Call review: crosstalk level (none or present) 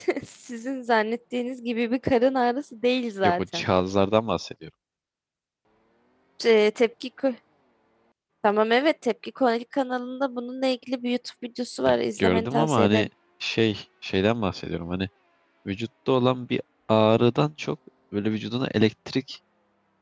present